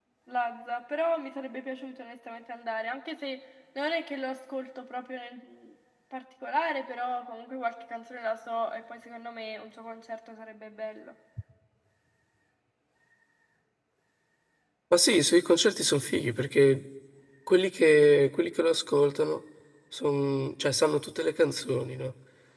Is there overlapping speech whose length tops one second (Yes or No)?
No